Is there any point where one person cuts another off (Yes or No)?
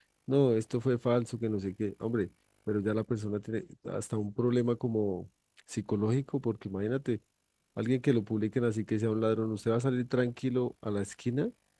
No